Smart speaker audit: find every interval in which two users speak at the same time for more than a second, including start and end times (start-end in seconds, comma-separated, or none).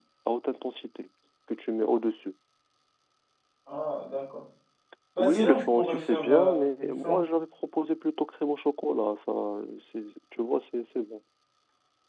5.2-7.2